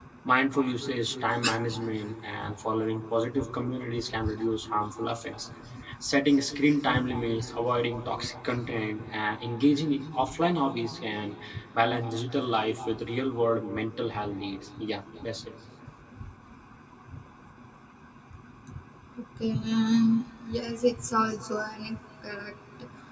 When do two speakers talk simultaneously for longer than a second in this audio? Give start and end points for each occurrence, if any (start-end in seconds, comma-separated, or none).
none